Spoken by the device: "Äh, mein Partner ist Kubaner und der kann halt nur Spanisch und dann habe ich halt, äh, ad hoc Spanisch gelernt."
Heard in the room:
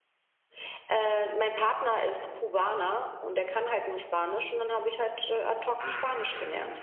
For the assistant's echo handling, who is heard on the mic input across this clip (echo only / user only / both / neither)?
both